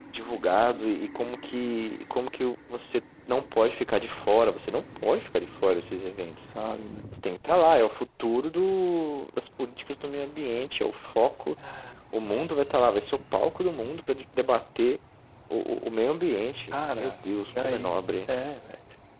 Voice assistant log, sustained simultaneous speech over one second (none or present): present